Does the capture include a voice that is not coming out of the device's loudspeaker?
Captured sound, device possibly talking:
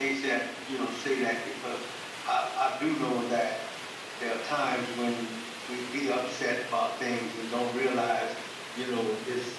Yes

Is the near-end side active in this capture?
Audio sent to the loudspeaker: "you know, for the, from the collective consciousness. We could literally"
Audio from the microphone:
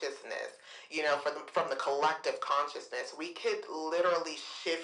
No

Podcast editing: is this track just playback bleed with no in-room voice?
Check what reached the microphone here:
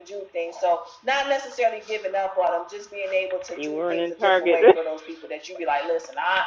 No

